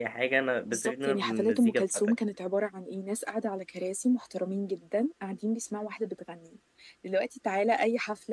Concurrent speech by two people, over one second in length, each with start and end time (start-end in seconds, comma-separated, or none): 0.7-2.1